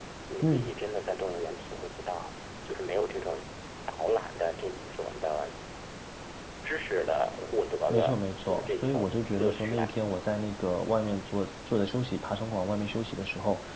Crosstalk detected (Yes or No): Yes